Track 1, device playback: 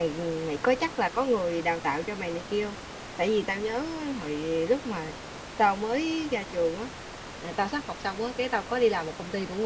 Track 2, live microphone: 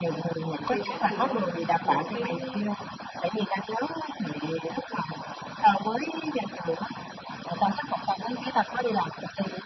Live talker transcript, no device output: chưa chắc gì đó học được cái

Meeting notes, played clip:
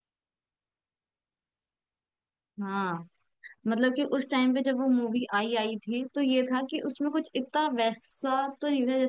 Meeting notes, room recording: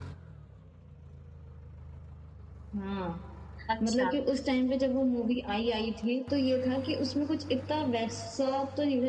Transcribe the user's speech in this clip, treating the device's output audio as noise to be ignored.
अच्छा

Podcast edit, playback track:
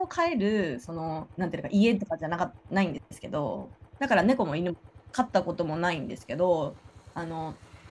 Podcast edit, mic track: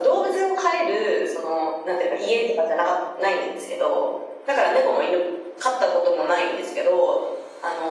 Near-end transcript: none

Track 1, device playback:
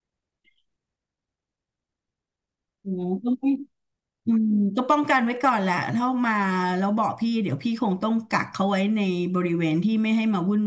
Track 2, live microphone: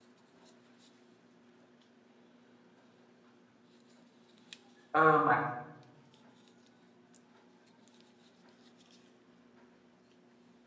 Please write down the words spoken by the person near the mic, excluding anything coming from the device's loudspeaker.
เออหมา

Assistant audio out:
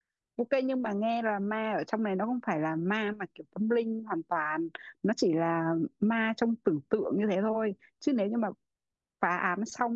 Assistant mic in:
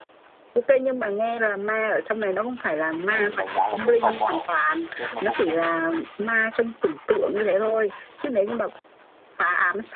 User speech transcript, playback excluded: theo mình đánh giá là kết không có hậu kết nó không vui

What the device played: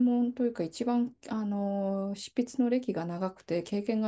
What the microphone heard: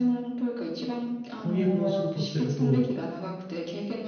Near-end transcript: 翻訳の仕事をしてると、

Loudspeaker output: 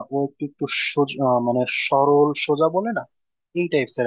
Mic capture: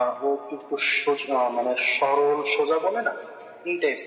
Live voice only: none

